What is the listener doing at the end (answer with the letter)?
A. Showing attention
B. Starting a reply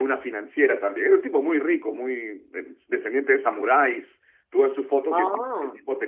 A